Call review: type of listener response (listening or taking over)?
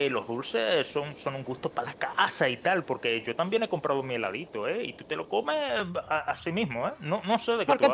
taking over